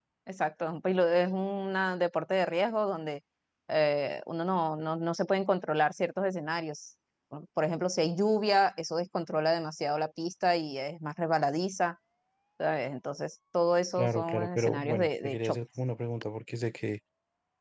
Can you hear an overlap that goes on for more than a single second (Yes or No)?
Yes